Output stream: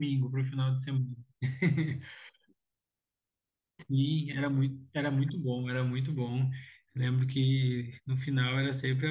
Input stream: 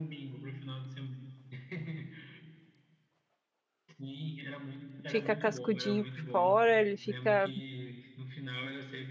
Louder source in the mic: user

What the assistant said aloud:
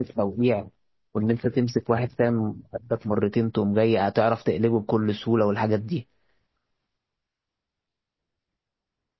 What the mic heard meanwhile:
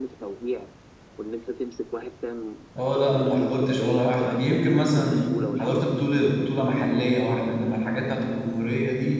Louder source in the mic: user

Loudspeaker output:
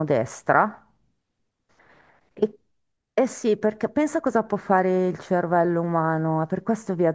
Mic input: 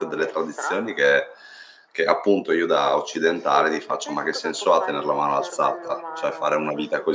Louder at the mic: user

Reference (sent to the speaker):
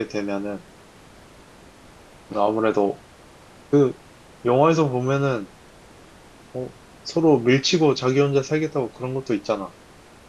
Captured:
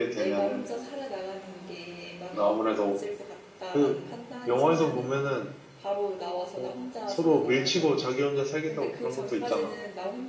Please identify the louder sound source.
echo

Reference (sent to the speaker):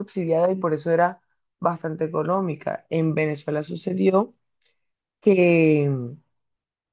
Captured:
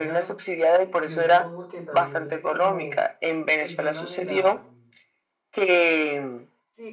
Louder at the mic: echo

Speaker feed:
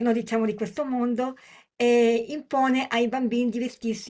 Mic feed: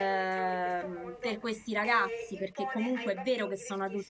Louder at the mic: user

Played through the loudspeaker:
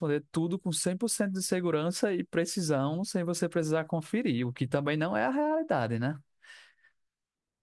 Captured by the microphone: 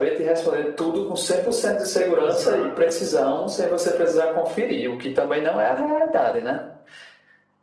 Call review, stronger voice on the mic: echo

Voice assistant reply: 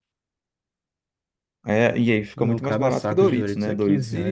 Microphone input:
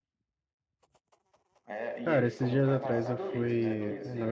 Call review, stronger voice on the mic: user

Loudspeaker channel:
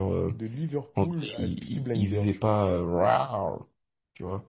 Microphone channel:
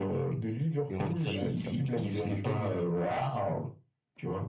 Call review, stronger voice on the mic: echo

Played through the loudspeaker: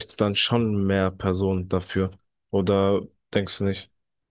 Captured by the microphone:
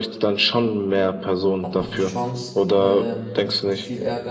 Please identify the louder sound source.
echo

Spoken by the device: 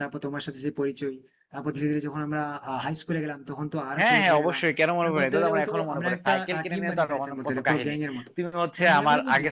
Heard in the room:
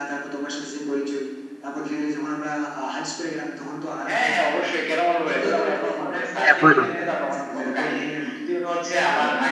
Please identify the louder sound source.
user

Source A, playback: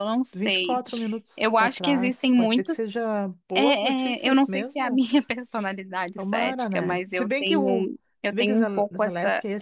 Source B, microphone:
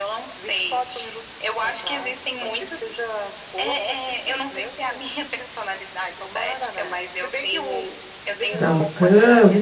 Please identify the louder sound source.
user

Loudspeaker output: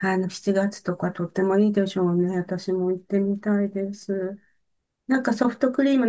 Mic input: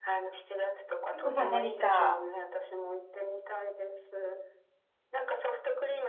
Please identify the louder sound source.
user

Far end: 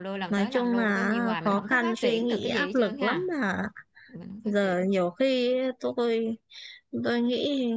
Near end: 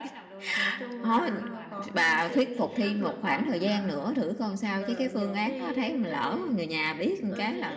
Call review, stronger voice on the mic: user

